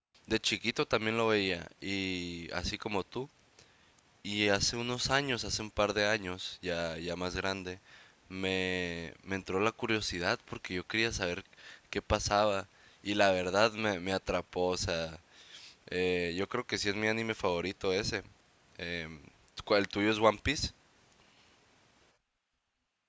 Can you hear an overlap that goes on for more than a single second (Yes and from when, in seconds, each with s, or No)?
No